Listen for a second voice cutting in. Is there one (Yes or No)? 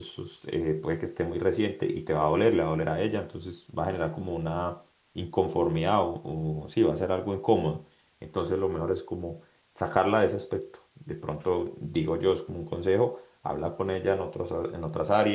No